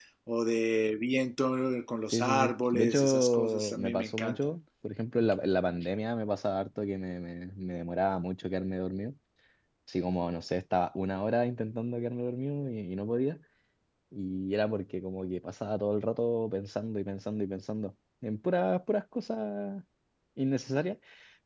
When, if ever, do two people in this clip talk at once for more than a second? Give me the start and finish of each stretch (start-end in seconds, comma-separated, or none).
2.1-4.5